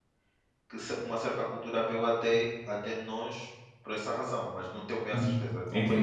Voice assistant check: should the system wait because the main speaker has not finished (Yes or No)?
No